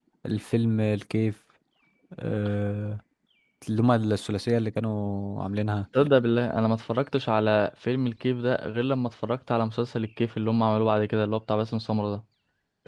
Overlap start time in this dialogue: none

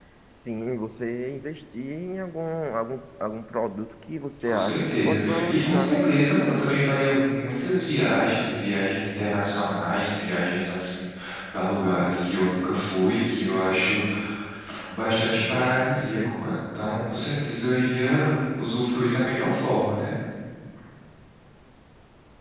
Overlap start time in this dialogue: 4.4 s

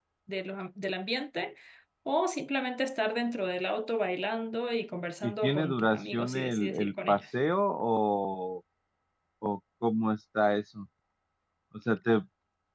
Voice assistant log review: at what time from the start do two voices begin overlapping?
5.2 s

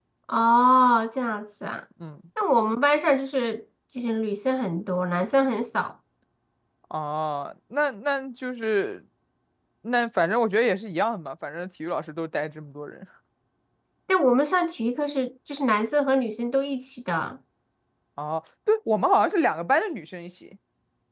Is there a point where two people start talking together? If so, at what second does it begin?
none

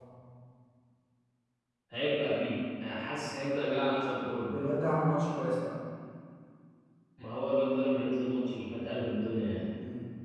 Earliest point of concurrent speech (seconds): none

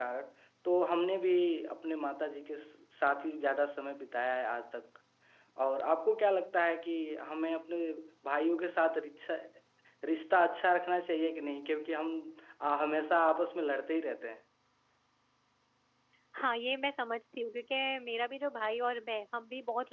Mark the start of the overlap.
none

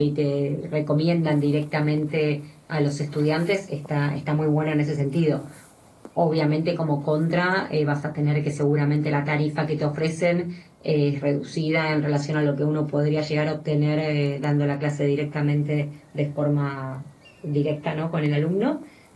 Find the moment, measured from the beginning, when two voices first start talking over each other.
none

